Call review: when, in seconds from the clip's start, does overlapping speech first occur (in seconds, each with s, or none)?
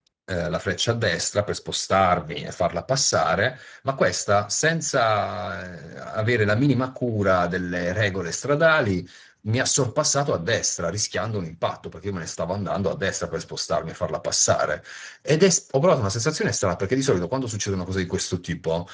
none